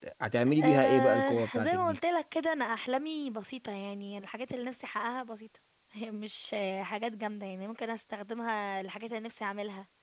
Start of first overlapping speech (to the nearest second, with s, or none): 1 s